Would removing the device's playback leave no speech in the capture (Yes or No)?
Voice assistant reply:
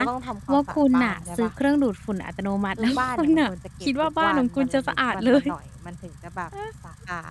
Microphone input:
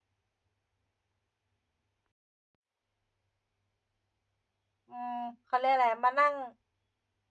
No